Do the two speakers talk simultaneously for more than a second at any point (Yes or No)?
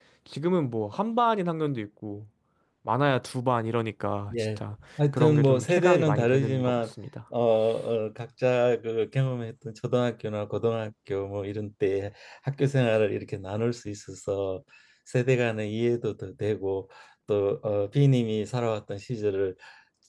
Yes